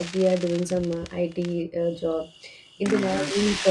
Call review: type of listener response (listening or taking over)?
listening